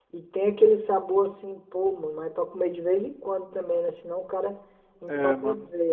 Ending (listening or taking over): taking over